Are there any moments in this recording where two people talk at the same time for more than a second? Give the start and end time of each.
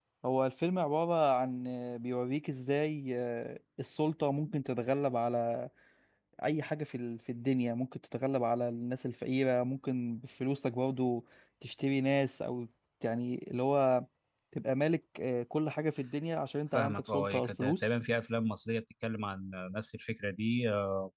16.7-17.9

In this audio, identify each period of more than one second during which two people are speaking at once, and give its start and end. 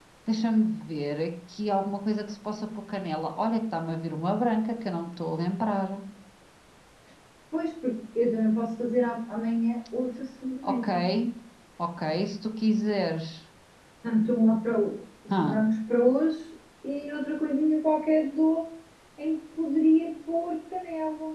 none

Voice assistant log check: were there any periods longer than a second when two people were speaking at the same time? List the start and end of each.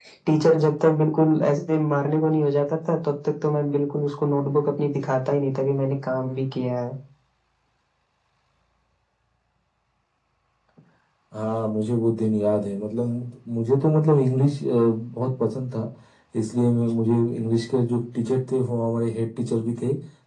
none

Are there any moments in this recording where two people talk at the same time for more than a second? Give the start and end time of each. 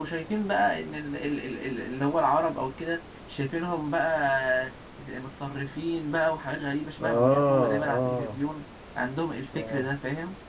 7.0-8.4

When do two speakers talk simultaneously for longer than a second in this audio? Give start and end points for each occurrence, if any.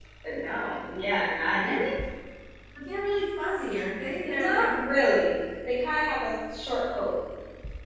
none

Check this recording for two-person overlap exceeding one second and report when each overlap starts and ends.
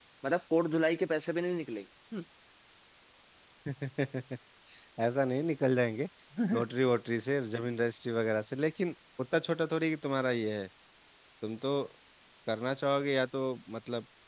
none

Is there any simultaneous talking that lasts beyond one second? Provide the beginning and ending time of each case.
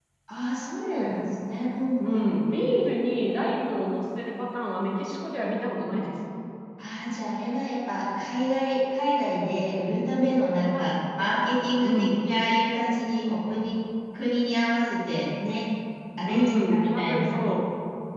16.3-17.5

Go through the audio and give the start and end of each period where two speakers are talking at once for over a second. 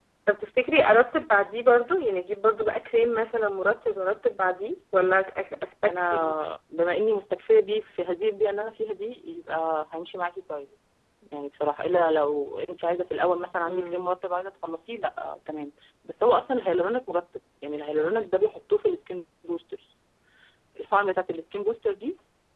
none

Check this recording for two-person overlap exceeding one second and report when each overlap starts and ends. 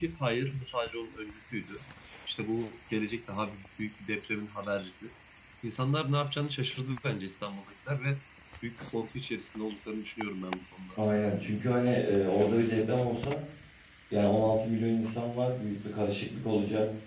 none

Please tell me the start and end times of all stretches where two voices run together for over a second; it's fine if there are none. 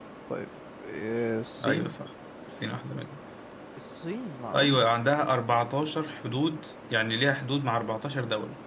none

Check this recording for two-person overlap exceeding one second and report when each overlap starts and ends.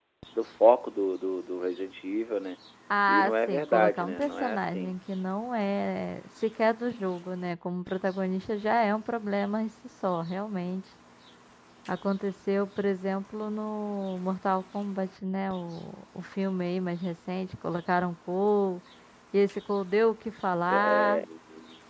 3.1-5.0

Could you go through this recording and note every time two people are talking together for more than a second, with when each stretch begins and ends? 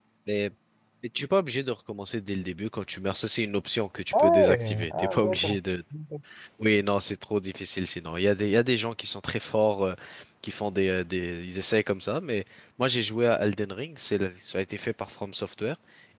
4.2-5.6

